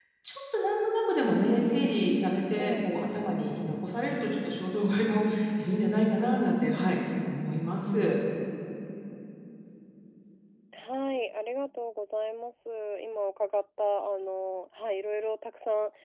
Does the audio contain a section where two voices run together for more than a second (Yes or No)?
No